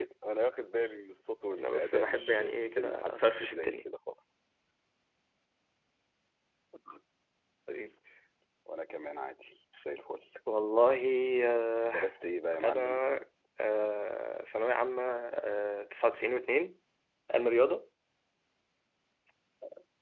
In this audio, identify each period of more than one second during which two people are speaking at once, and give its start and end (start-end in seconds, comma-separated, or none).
1.6-3.8